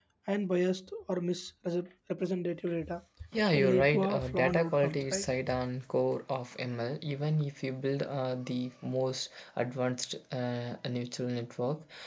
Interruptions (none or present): present